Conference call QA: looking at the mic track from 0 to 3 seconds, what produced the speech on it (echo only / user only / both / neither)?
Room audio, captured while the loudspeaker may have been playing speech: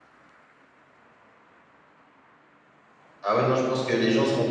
neither